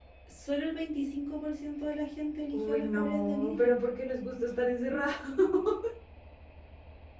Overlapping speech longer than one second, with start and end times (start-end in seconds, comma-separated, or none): 2.5-3.8